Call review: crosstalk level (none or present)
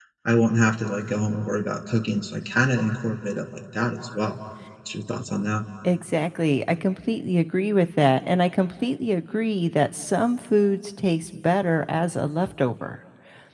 none